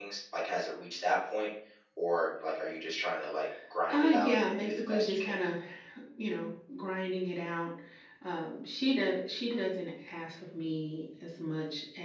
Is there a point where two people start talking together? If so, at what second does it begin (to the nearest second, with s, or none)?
4 s